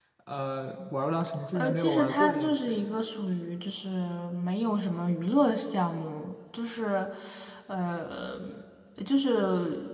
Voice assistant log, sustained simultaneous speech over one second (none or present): present